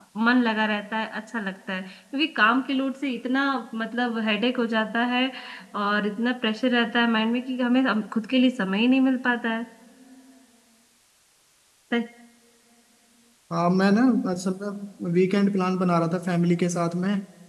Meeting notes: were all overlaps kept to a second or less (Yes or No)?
Yes